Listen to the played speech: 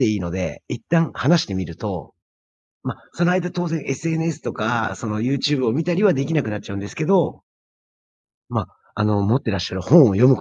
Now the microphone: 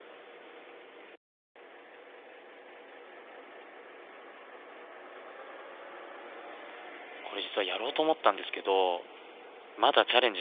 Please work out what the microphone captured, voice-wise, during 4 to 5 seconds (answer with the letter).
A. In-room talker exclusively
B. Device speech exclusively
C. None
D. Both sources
C